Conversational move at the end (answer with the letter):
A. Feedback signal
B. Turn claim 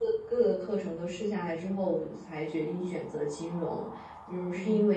A